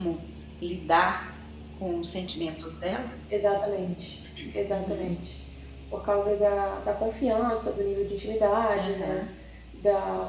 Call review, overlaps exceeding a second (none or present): none